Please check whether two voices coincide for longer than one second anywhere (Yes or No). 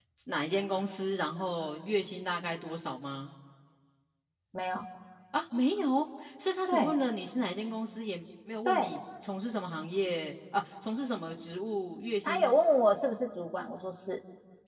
No